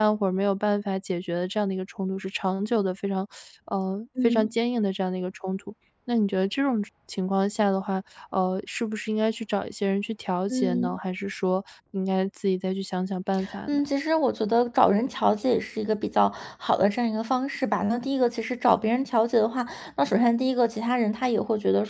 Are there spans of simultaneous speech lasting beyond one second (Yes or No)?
No